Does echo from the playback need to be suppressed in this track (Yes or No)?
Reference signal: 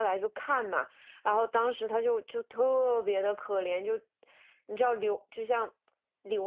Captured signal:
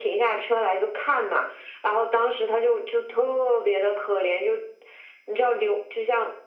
Yes